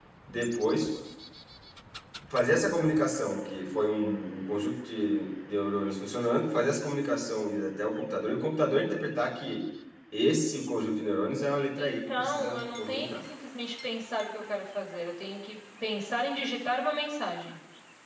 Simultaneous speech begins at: 11.8 s

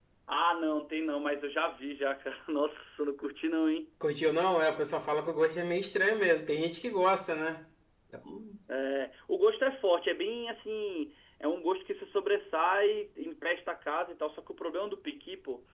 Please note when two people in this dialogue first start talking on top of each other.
none

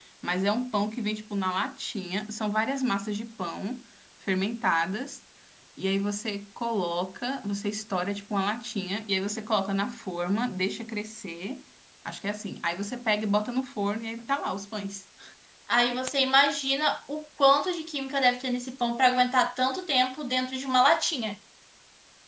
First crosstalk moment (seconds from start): none

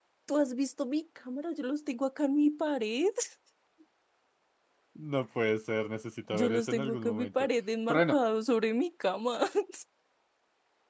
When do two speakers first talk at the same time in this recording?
6.3 s

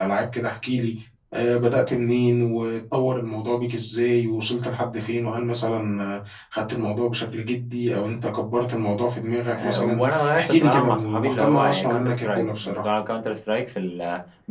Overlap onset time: 9.5 s

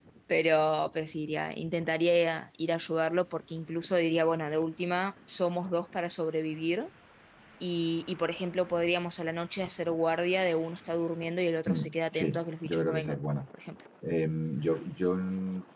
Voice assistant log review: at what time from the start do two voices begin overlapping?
11.7 s

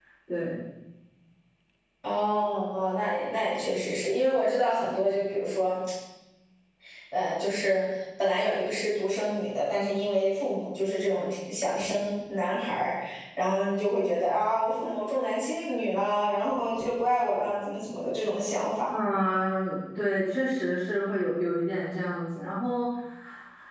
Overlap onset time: none

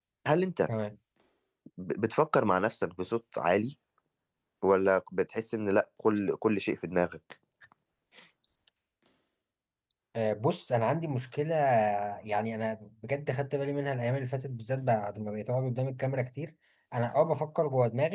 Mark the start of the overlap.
none

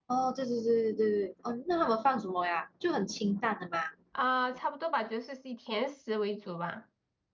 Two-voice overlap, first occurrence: none

